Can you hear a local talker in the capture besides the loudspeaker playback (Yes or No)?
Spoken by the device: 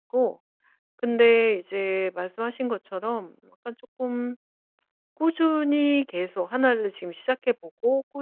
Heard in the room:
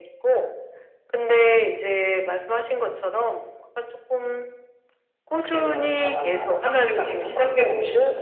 Yes